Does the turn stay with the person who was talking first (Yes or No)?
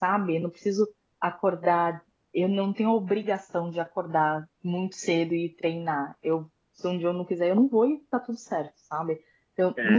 No